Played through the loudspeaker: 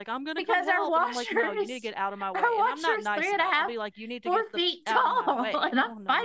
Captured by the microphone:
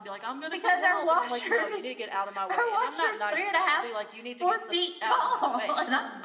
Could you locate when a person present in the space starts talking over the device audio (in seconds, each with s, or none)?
none